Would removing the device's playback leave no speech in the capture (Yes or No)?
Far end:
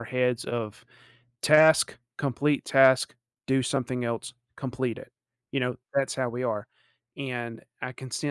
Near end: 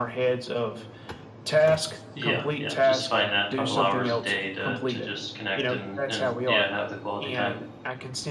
No